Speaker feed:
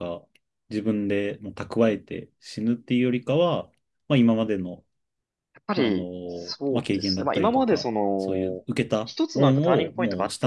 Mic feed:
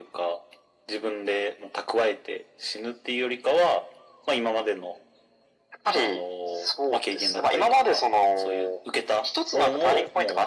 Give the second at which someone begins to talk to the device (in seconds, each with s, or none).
none